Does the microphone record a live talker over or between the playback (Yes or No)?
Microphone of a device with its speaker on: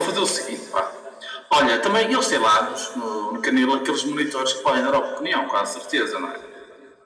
No